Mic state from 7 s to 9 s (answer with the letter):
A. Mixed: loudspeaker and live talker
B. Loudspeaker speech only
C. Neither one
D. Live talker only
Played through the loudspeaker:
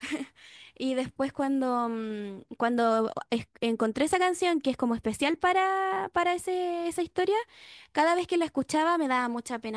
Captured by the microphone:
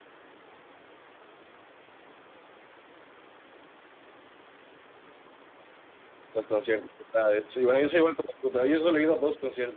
D